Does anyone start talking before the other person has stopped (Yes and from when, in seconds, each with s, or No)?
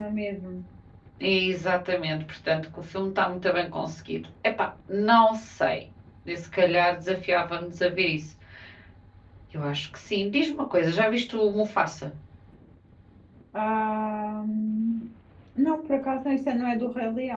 No